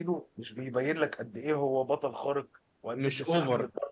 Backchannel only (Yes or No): Yes